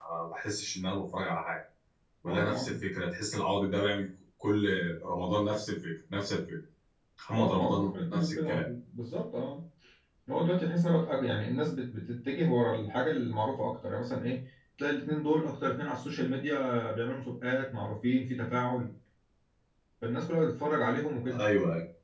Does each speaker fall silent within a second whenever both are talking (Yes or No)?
No